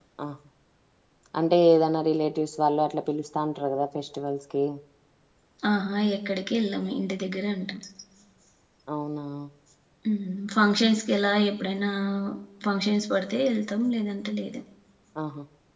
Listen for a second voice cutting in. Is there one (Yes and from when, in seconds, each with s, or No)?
No